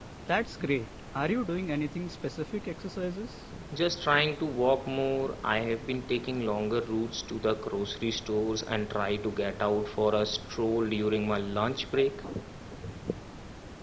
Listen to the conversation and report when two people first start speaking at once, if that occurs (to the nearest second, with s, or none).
none